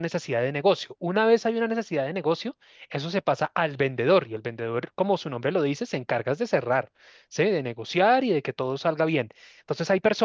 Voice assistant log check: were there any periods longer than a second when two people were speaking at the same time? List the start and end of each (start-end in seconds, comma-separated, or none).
none